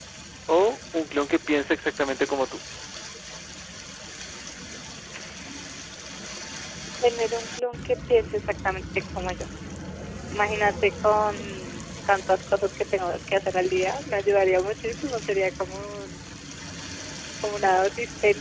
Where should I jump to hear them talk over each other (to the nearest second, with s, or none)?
none